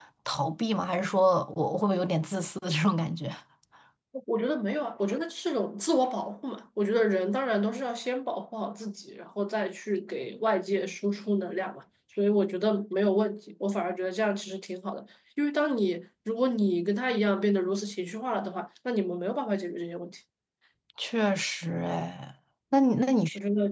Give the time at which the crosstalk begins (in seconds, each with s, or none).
none